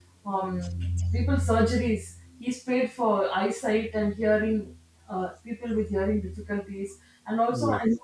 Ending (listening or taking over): listening